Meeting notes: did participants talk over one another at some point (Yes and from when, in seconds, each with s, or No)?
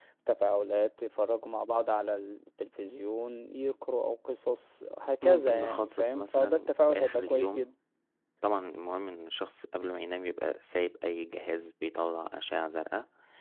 Yes, from 5.2 s